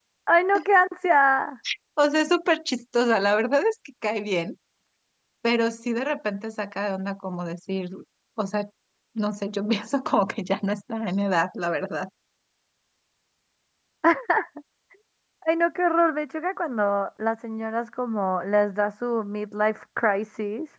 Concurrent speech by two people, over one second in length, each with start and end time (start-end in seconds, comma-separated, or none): none